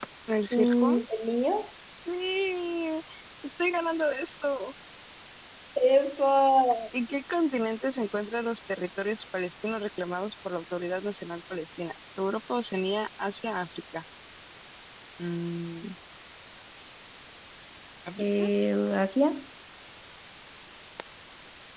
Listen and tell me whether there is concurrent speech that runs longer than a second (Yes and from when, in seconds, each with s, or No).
No